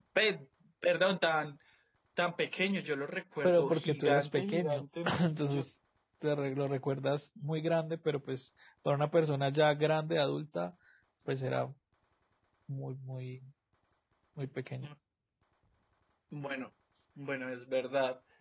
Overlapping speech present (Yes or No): Yes